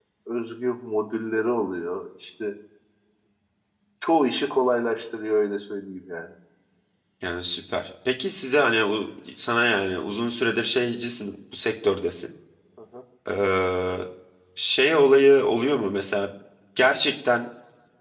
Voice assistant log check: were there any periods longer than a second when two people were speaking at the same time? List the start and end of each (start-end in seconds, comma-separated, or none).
none